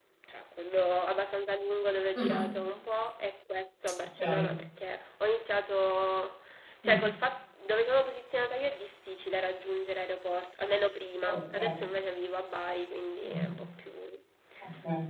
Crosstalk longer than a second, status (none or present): none